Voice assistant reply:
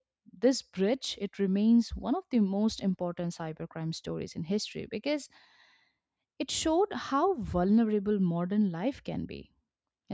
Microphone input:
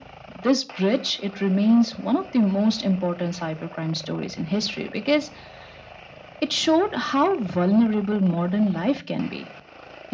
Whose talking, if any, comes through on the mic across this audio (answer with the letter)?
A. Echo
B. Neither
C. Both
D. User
A